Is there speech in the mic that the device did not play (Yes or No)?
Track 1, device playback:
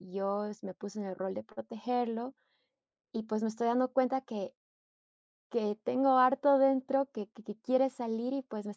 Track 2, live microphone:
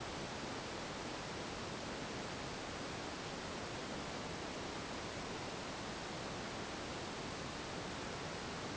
No